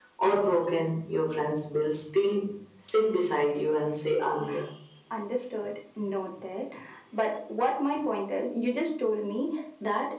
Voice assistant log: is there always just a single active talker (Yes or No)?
Yes